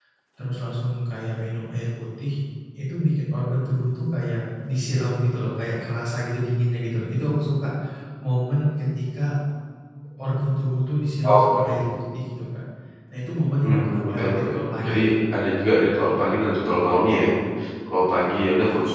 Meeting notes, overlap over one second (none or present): present